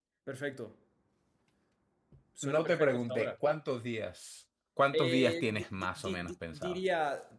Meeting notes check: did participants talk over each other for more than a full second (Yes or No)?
Yes